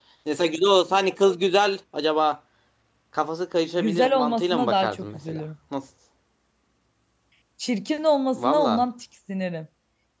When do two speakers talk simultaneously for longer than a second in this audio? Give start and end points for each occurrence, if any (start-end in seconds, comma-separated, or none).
3.8-5.4